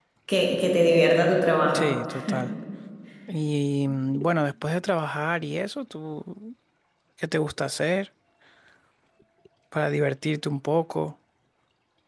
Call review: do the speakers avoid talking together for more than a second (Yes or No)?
Yes